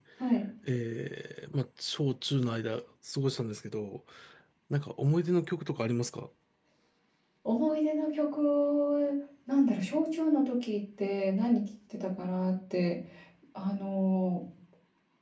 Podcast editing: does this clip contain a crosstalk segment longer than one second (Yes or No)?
No